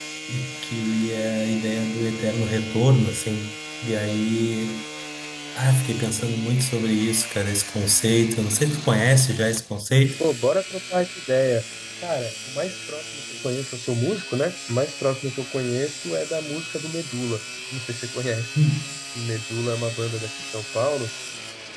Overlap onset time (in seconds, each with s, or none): none